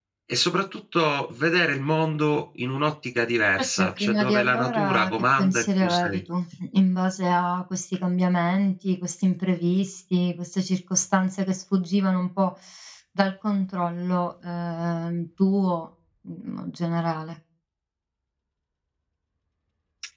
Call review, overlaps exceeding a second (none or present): present